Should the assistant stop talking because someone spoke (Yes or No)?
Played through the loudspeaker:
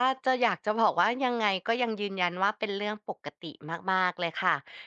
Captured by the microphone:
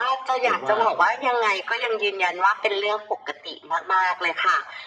Yes